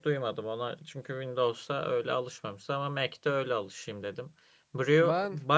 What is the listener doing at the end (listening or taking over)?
listening